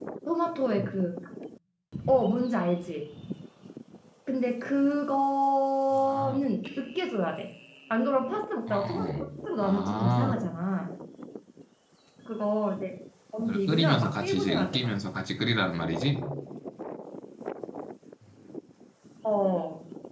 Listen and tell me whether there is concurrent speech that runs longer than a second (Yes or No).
Yes